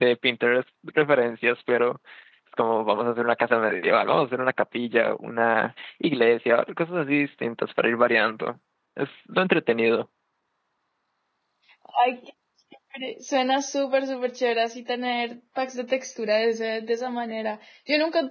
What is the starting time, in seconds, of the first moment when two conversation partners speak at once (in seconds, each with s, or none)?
none